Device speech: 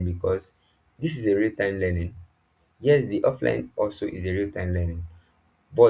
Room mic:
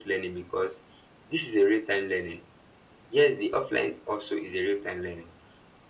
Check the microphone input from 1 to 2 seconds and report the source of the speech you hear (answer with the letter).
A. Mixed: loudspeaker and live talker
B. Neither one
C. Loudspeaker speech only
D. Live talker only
C